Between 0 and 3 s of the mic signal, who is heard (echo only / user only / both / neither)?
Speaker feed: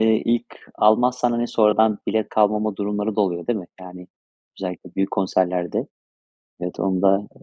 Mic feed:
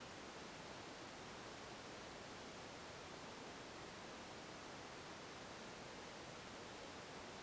neither